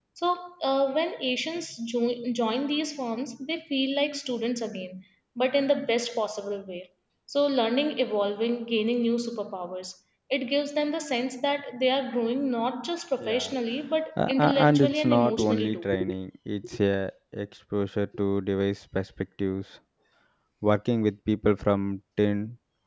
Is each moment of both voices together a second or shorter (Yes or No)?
No